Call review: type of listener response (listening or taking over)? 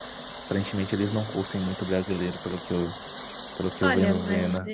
taking over